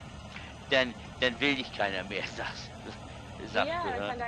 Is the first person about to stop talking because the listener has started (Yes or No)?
Yes